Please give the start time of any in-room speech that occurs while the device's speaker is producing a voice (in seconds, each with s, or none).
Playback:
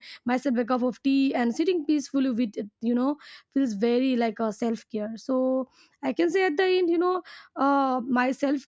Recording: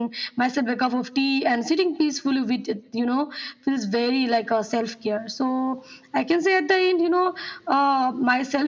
none